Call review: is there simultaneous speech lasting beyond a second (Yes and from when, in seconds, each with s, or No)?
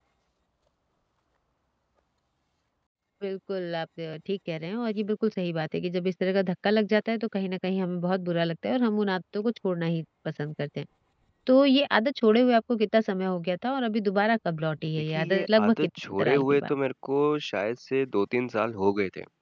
Yes, from 15.1 s